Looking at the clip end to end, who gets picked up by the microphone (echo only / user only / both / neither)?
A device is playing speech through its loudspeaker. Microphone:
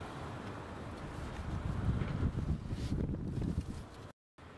neither